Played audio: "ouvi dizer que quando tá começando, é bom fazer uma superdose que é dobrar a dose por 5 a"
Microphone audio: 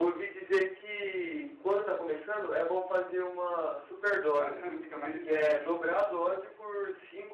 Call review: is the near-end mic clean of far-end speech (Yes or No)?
No